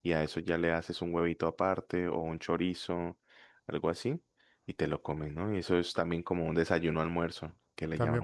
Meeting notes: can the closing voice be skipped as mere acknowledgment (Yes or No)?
No